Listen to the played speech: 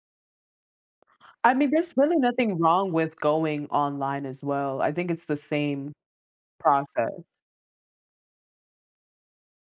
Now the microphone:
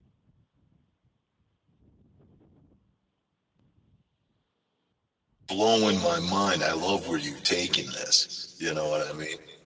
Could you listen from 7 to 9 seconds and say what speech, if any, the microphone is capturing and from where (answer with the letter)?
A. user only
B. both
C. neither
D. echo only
A